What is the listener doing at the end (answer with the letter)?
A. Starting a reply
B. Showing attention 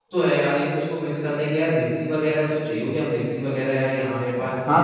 A